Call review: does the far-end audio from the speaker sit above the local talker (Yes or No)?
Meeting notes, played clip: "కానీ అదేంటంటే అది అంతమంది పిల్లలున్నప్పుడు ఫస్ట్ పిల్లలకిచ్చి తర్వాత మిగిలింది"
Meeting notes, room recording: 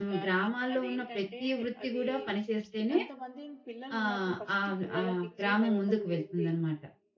No